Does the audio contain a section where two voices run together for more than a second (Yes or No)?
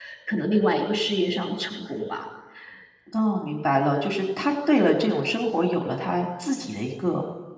No